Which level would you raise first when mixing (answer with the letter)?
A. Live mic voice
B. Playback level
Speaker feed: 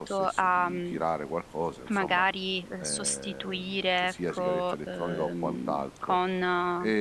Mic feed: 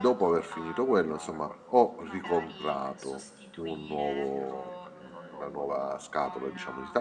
B